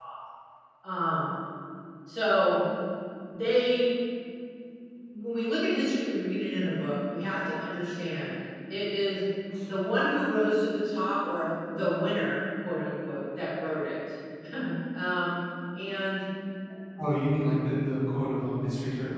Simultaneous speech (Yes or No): No